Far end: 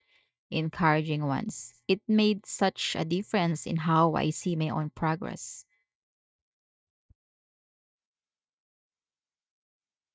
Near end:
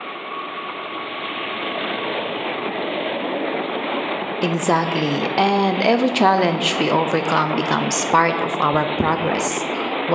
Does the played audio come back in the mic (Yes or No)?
No